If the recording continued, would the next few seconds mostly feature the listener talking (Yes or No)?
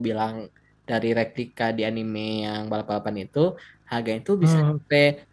No